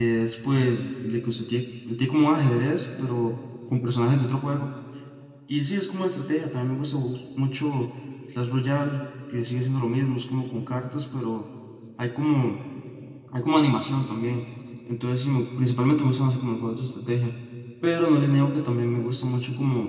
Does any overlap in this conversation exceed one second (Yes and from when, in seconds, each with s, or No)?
No